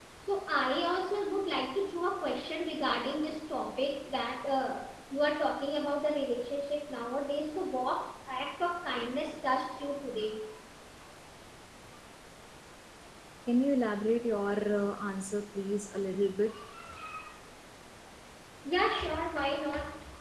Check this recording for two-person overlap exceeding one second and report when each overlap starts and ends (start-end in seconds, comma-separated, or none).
none